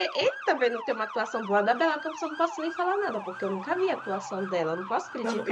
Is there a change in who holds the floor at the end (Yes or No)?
Yes